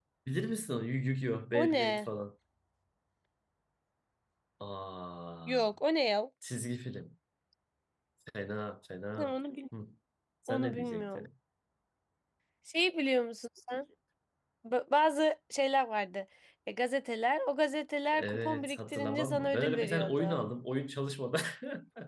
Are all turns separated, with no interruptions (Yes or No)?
No